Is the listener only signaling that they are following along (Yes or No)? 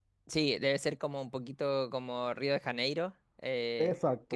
Yes